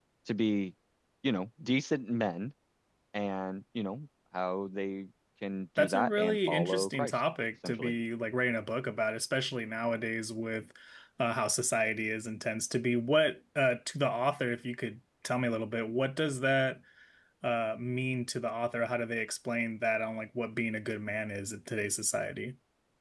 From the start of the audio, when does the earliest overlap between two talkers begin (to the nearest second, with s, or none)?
6 s